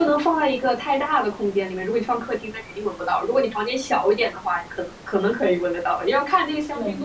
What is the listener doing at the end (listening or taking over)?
listening